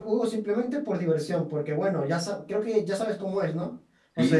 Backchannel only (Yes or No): Yes